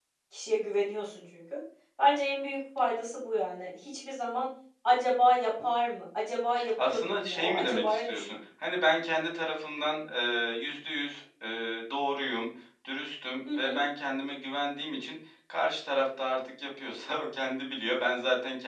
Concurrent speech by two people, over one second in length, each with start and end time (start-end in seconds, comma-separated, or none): 6.8-8.4